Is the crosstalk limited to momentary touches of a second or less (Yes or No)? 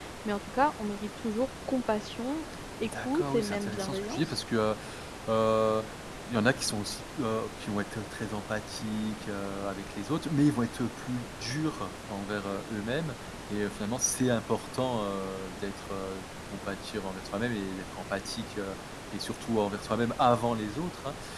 No